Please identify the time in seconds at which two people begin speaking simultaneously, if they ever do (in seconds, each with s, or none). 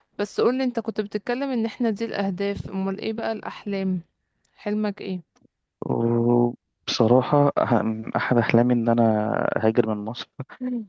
none